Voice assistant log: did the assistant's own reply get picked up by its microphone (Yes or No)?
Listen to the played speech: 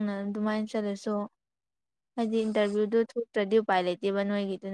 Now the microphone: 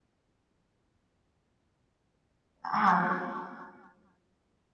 No